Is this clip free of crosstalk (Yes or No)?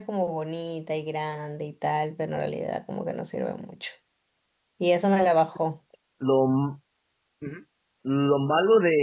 Yes